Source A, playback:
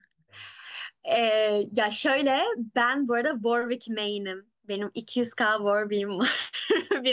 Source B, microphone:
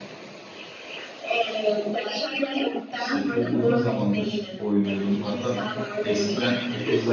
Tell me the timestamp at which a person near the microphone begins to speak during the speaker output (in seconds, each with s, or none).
2.9 s